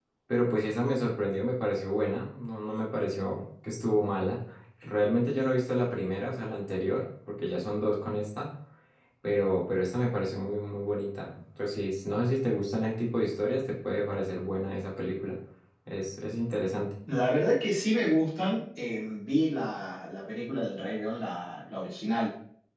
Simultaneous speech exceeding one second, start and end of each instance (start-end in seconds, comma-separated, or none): none